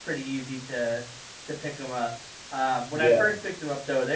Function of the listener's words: listening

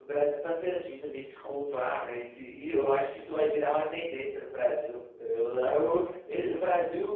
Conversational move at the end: listening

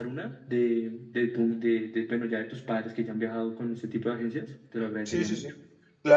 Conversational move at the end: taking over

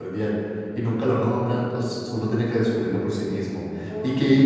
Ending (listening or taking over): listening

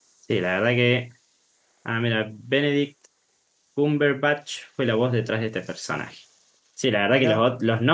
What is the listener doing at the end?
listening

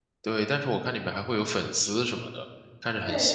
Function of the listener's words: taking over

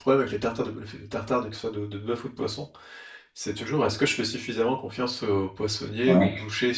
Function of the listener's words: listening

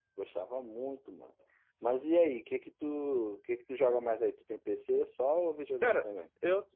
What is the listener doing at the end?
taking over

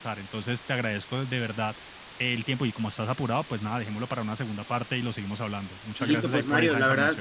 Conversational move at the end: taking over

